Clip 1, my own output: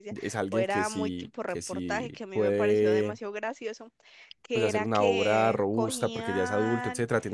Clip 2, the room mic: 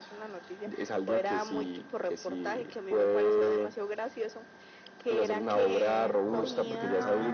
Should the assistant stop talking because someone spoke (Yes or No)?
Yes